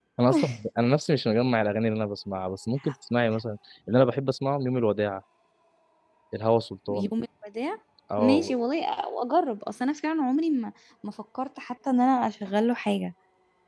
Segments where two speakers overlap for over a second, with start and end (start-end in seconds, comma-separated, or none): none